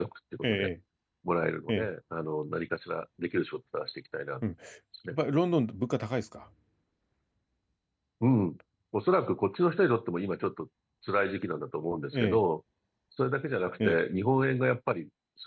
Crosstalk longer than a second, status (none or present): none